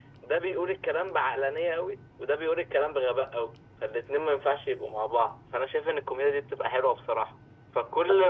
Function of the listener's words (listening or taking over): listening